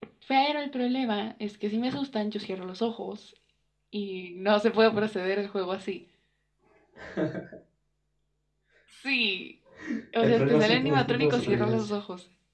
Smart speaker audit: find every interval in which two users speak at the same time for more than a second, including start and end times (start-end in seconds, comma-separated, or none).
10.2-11.9